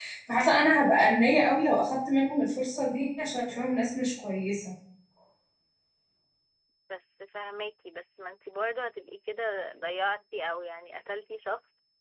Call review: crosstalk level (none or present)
none